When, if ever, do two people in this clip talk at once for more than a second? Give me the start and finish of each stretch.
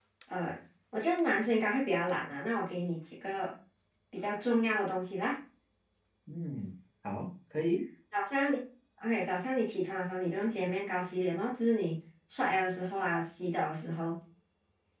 none

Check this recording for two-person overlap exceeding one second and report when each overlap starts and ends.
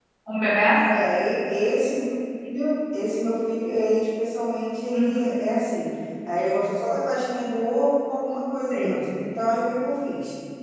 none

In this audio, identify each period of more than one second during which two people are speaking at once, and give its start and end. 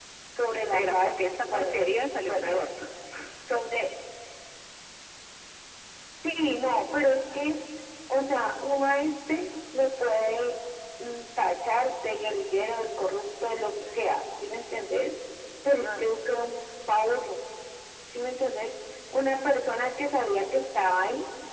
0.7-2.7

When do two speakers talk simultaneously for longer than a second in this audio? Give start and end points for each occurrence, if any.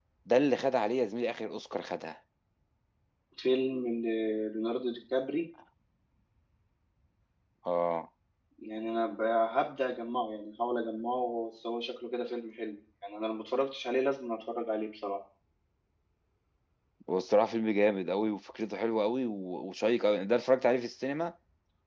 none

